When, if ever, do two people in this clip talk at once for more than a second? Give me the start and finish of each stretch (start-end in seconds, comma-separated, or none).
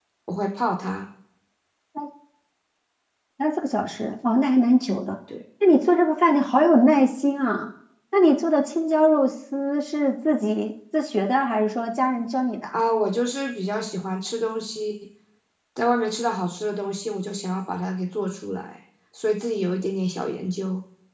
none